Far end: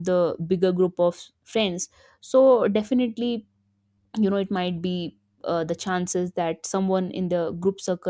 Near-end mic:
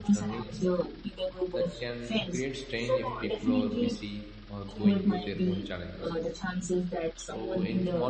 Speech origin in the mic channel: both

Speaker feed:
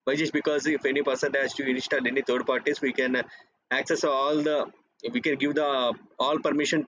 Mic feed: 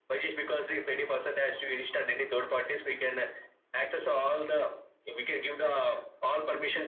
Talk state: echo only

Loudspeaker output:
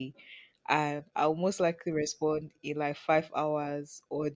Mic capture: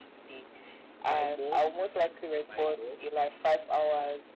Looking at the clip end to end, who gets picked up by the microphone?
both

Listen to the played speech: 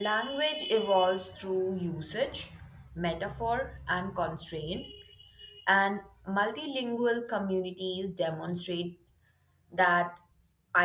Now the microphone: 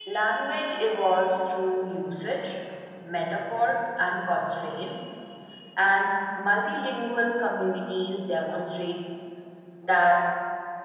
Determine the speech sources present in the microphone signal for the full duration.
echo only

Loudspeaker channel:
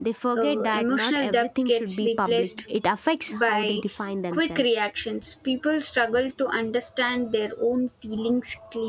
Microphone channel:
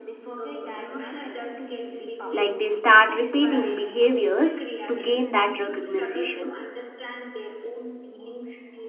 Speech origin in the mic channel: both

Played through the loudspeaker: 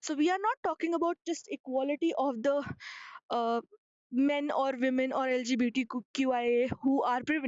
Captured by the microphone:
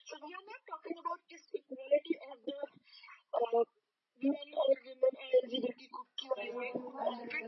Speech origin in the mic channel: both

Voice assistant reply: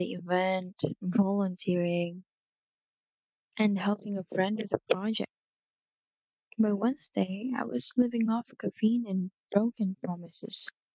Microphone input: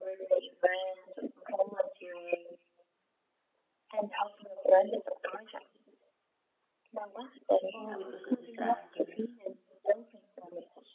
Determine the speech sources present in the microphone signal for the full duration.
both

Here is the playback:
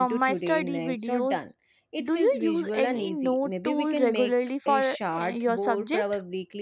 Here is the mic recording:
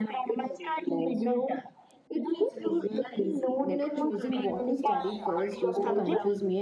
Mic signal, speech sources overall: both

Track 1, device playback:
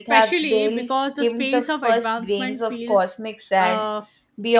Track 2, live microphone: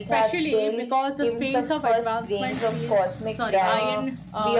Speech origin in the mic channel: both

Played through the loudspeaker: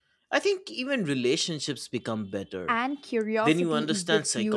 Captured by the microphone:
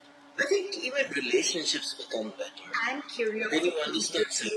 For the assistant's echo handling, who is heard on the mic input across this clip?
echo only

